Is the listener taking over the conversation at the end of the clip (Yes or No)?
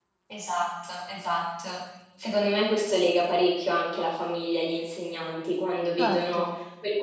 No